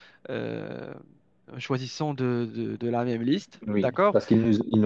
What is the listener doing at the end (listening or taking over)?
taking over